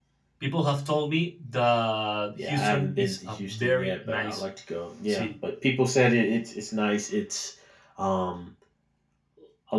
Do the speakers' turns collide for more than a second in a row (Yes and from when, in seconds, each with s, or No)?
Yes, from 2.4 s